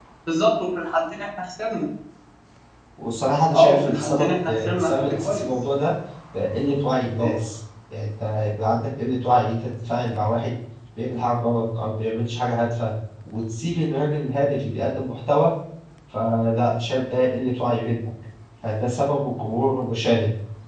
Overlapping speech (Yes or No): Yes